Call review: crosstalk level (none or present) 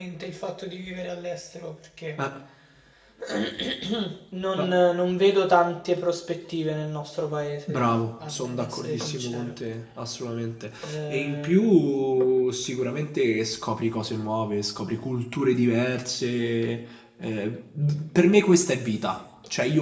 present